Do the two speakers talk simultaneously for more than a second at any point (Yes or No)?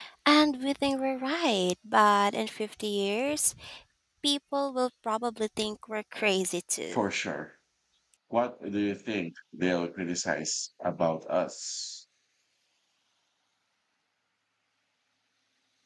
No